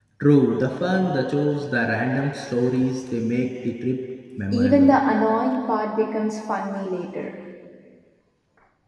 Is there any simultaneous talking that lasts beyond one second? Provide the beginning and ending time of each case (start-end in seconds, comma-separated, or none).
none